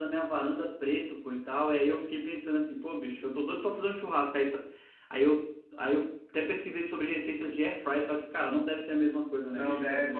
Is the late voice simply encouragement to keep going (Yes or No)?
No